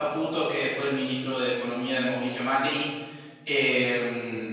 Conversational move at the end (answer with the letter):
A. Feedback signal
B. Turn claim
A